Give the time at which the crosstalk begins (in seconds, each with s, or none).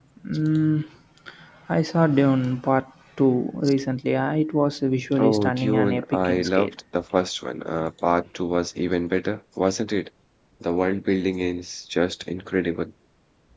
5.2 s